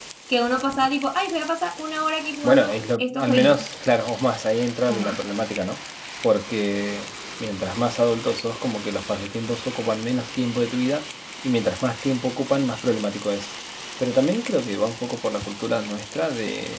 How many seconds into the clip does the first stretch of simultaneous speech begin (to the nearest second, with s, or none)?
2 s